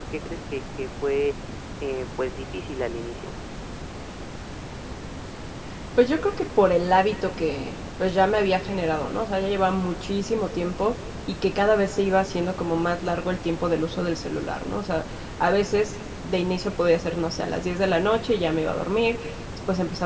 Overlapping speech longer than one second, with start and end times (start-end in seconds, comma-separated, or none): none